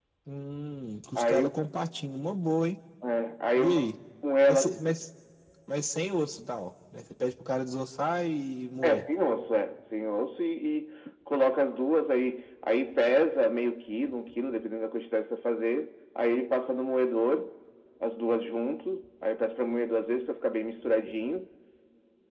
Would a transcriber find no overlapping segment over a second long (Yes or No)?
Yes